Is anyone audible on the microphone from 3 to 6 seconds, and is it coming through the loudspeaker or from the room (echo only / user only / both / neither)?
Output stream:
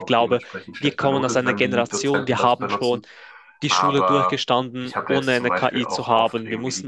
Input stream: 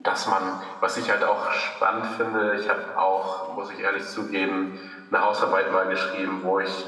user only